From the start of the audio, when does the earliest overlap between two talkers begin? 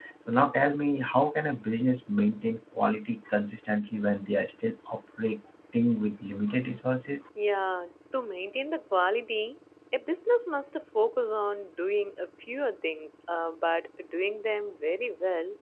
none

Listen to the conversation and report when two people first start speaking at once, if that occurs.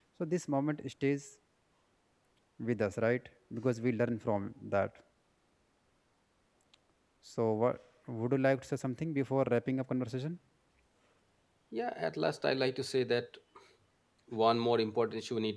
none

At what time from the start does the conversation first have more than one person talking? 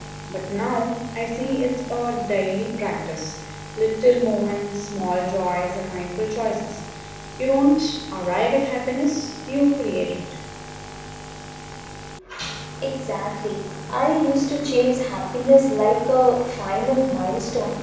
none

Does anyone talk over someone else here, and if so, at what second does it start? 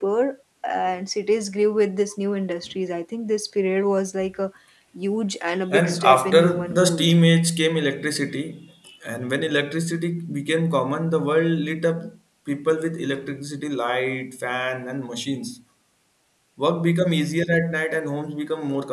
5.7 s

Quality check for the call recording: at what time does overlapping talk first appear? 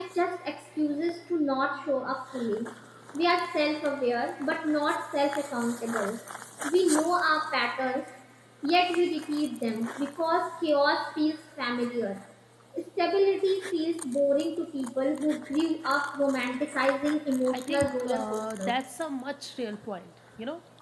17.5 s

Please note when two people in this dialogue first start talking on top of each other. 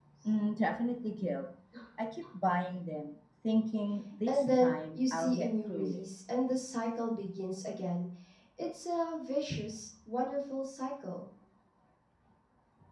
4.3 s

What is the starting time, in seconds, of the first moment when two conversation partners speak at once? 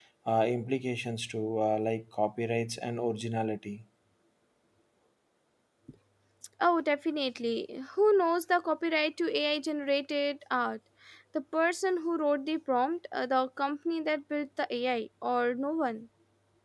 none

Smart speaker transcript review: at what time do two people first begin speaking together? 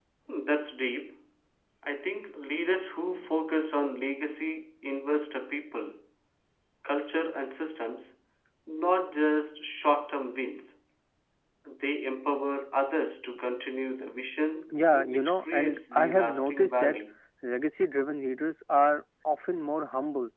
14.7 s

